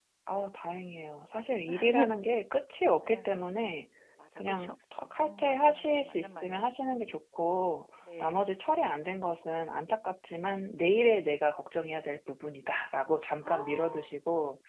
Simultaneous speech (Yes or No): Yes